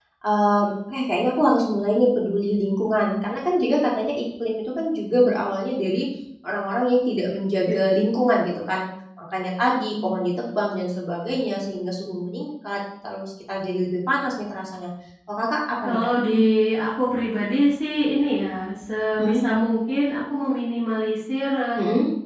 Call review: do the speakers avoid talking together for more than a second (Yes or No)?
Yes